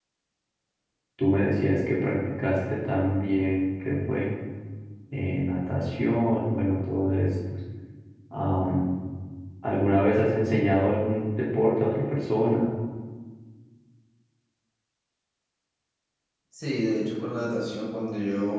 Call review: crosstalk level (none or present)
none